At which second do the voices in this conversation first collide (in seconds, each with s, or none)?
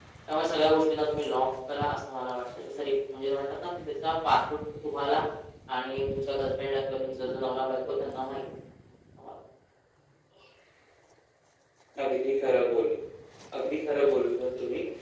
none